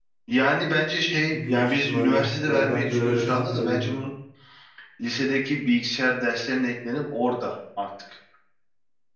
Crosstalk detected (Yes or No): Yes